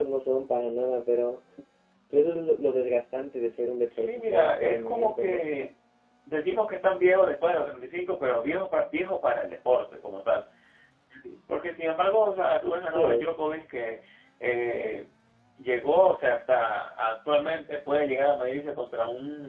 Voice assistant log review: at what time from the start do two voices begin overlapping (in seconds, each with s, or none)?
4.0 s